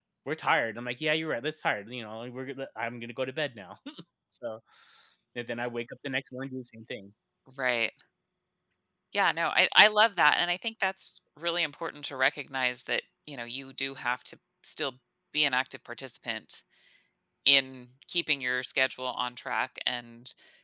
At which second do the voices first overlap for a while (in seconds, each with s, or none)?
none